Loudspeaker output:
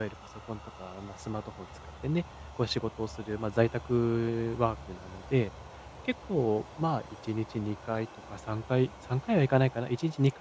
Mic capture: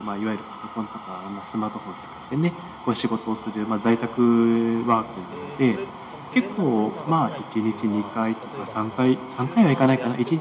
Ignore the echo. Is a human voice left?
Yes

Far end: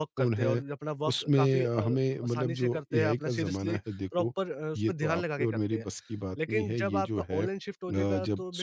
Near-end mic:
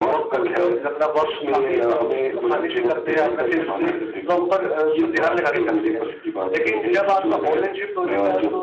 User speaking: No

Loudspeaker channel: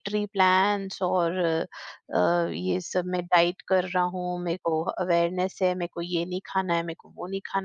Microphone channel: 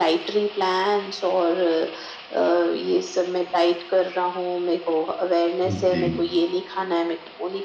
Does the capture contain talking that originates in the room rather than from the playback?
Yes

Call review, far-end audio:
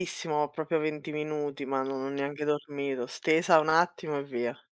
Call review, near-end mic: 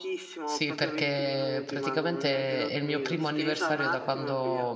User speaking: Yes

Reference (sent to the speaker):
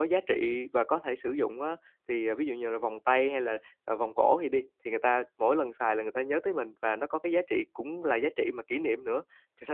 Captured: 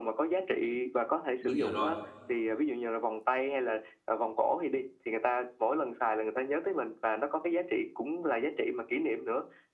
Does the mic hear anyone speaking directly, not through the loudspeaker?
Yes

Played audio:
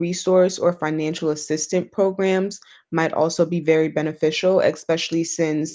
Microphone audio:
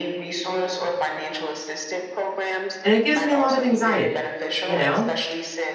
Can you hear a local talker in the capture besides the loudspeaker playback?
Yes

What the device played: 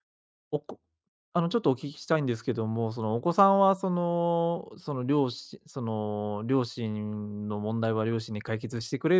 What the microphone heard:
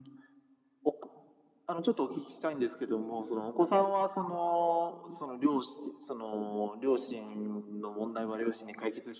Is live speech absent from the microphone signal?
Yes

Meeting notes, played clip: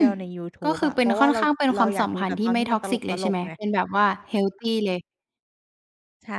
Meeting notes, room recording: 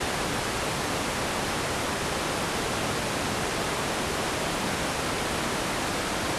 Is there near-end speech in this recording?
No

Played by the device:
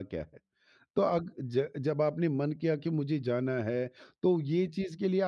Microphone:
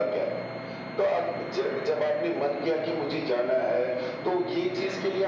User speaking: No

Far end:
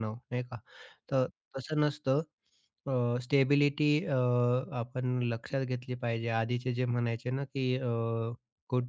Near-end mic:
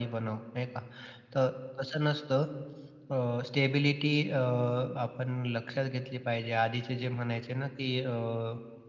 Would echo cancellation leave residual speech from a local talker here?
No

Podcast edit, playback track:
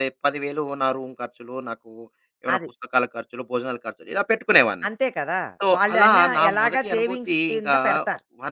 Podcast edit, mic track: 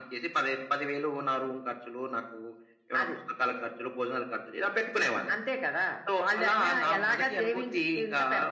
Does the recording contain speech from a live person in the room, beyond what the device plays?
No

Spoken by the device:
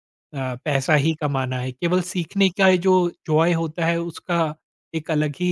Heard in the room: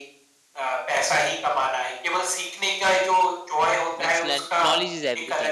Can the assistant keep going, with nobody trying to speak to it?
No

